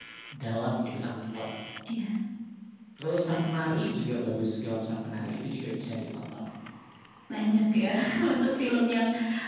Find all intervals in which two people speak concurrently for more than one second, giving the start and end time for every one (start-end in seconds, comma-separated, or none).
none